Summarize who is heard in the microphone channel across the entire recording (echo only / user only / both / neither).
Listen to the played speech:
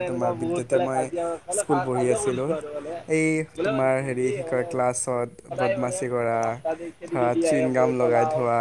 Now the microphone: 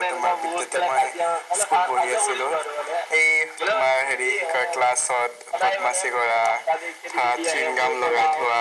echo only